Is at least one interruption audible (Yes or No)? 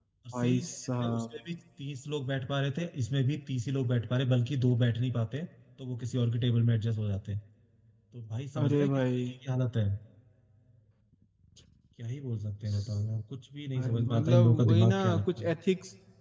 Yes